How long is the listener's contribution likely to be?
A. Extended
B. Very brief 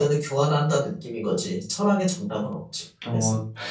A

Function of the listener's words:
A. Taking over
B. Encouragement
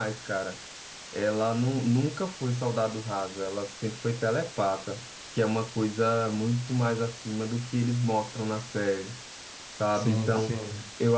B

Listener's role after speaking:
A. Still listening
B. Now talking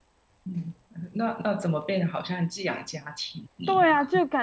B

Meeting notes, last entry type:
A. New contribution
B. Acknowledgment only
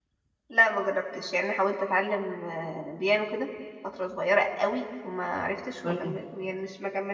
B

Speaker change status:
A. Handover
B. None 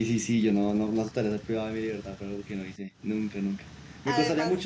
B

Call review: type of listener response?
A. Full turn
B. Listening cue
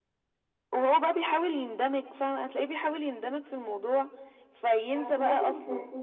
A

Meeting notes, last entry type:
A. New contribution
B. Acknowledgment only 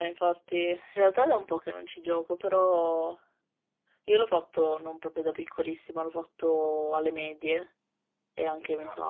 B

